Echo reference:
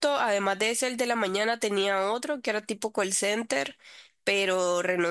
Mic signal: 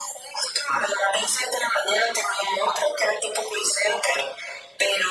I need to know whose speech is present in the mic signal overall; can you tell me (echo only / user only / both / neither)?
echo only